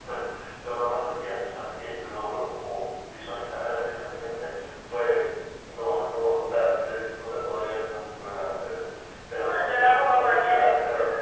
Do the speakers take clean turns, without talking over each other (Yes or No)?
No